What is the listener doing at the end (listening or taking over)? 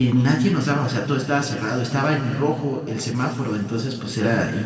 listening